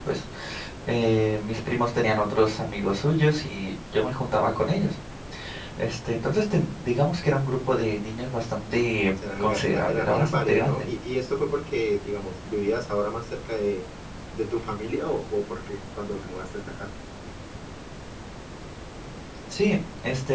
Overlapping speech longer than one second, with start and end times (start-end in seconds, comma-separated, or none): 9.4-10.9